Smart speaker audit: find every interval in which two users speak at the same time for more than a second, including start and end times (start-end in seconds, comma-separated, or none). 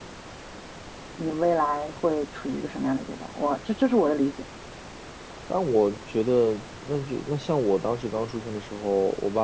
none